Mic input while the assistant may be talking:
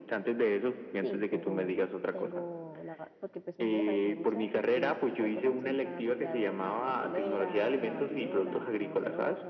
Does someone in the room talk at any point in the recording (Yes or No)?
Yes